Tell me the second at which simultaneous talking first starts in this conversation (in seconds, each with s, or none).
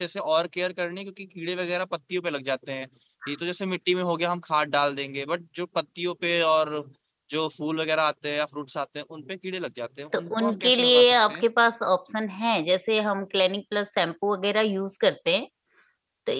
10.1 s